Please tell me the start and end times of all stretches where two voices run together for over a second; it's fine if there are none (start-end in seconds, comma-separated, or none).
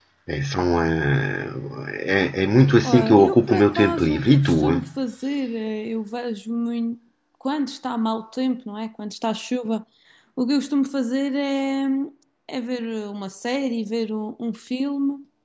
2.8-4.8